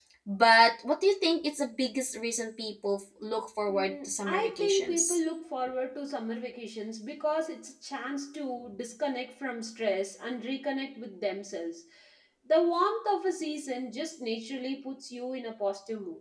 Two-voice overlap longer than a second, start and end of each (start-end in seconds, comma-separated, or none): 3.7-5.2